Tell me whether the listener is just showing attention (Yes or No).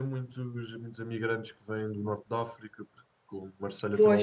Yes